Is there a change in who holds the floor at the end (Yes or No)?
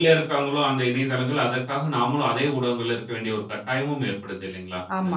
Yes